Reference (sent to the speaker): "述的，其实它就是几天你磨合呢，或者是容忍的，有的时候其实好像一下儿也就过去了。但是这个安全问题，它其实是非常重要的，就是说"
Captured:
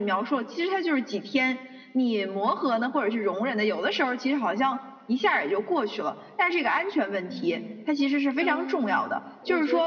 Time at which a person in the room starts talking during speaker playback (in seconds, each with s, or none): 7.3 s